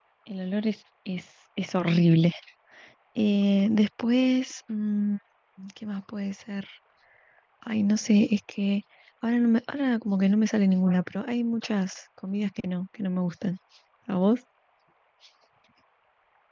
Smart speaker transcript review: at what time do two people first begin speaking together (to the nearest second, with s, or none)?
none